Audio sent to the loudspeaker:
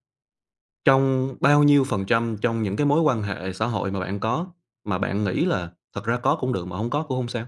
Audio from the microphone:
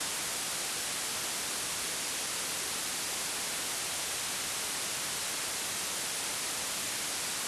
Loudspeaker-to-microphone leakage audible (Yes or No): No